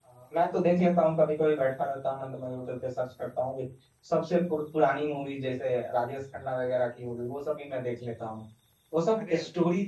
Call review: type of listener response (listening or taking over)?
listening